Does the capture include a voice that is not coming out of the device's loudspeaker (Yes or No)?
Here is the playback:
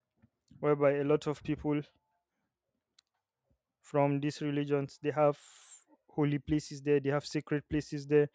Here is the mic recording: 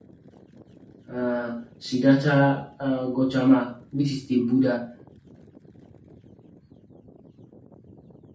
Yes